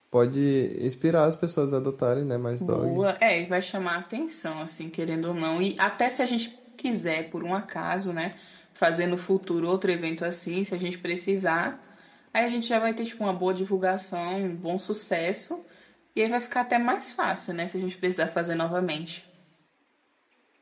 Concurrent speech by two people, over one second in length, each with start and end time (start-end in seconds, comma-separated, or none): none